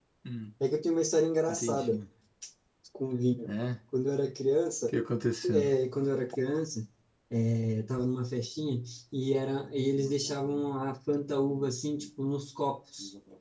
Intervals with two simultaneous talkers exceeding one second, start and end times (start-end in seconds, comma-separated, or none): none